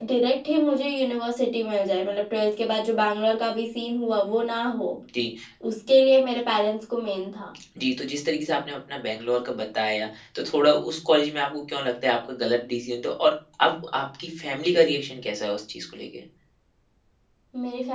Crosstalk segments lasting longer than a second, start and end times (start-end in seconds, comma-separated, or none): none